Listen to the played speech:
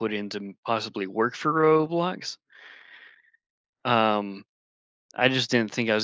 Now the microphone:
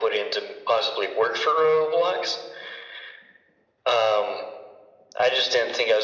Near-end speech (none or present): none